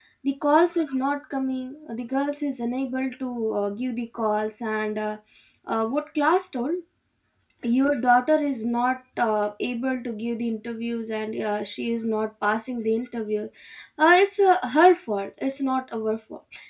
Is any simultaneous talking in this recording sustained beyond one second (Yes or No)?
No